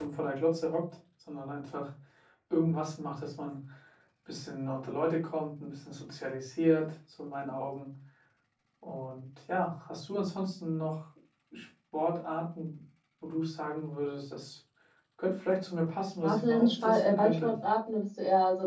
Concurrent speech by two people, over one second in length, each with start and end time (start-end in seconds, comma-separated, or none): 16.2-17.5